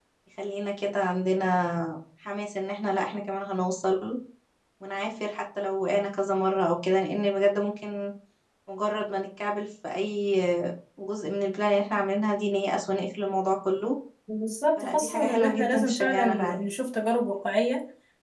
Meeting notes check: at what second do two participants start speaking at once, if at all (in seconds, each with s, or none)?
14.8 s